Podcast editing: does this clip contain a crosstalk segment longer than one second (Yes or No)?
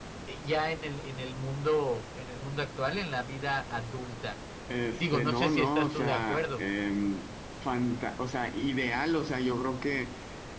Yes